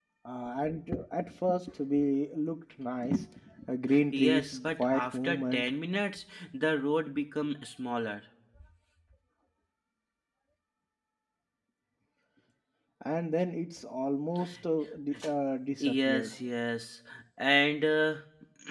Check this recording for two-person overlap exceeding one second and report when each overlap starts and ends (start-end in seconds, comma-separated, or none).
4.1-5.7